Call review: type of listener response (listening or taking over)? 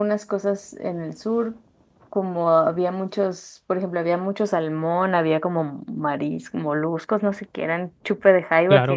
listening